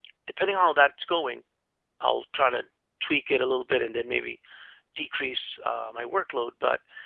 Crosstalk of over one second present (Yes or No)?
No